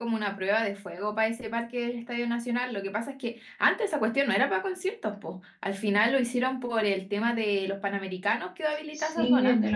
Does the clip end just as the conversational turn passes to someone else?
Yes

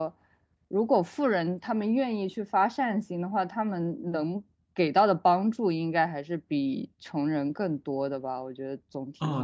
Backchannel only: No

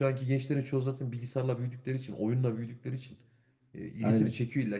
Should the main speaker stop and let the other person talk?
No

